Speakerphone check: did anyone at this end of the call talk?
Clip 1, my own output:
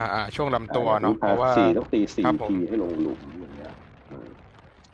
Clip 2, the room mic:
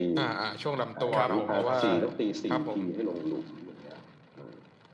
Yes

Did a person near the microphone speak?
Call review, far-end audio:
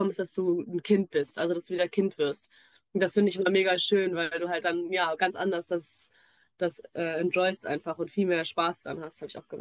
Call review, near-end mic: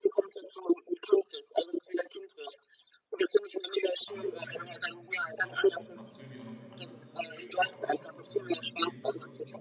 Yes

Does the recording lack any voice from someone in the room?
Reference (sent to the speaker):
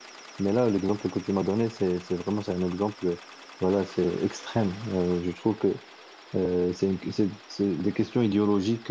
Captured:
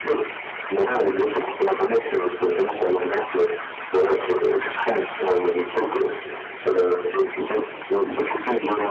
Yes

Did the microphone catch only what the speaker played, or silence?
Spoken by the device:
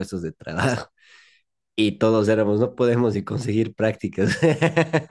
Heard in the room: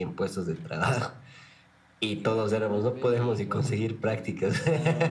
No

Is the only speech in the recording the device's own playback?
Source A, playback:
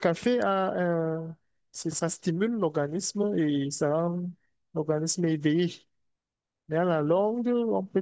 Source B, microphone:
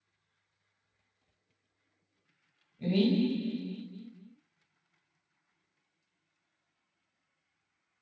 No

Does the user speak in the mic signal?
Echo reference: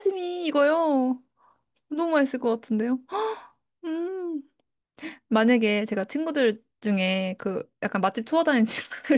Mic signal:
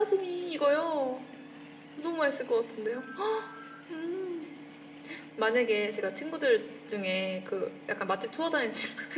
No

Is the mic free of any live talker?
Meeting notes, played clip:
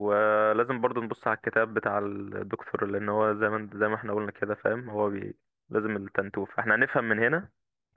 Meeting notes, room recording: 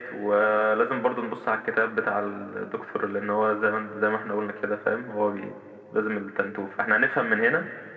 Yes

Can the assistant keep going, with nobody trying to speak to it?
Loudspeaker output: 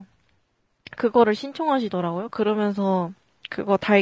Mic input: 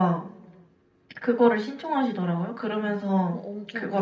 No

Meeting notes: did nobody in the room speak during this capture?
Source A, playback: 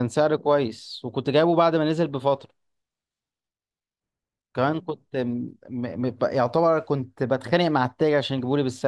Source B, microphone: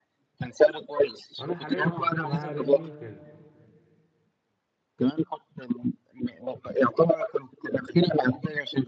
No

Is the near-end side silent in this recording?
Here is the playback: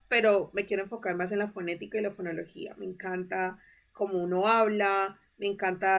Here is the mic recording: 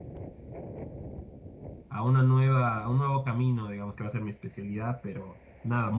No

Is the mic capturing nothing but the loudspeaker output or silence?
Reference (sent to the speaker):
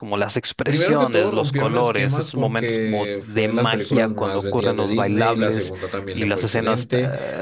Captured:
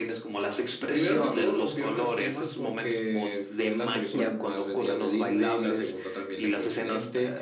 Yes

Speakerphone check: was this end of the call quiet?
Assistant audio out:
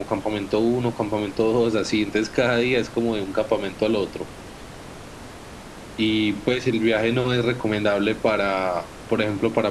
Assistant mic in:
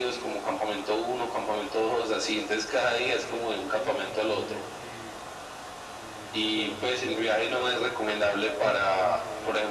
No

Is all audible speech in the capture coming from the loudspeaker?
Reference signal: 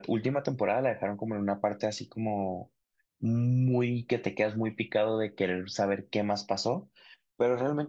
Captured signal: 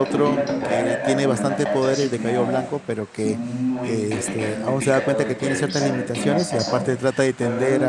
No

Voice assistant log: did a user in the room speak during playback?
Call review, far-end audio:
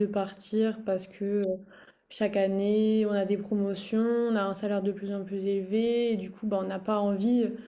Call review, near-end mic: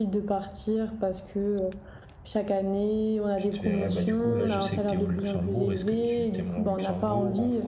Yes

